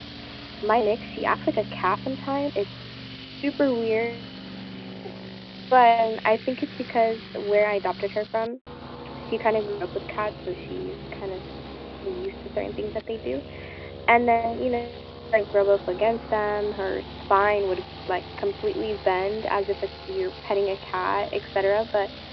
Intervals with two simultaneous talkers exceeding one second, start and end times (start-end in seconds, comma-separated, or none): none